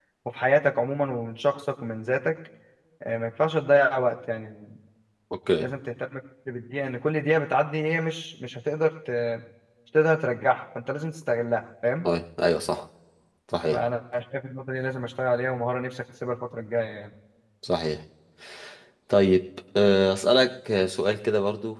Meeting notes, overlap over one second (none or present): none